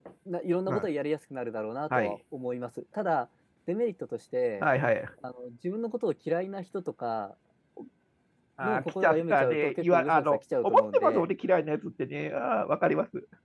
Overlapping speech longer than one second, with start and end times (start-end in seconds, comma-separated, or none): 8.6-11.3